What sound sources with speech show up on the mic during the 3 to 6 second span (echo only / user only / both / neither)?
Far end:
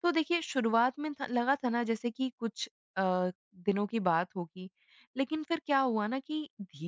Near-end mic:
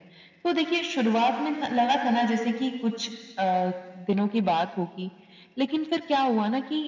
echo only